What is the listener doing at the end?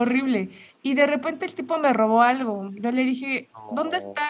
listening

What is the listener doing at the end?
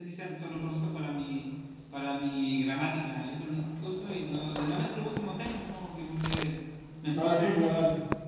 taking over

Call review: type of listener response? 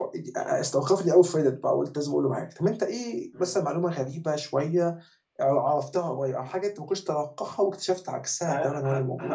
taking over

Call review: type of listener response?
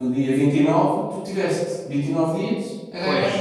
taking over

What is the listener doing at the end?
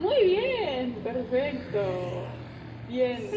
listening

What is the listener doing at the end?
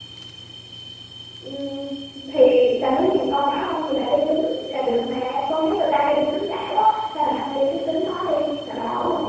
taking over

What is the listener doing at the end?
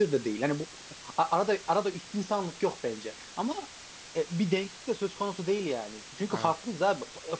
listening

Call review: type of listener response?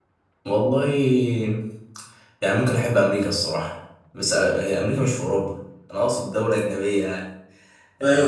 taking over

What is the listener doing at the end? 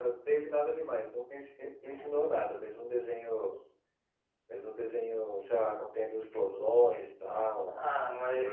taking over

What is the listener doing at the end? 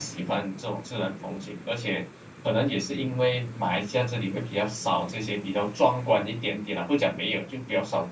taking over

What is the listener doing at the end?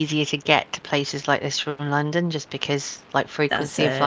listening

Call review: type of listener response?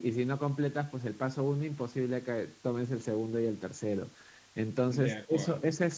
listening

